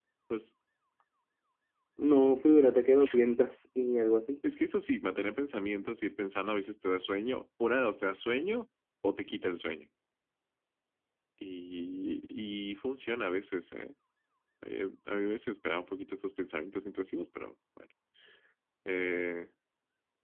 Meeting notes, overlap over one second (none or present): none